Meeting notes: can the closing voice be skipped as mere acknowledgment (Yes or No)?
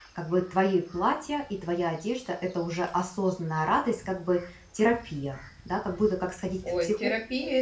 No